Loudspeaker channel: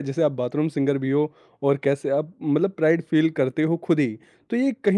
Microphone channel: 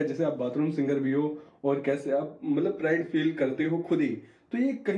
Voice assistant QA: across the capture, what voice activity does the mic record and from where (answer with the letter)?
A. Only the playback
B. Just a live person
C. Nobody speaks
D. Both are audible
A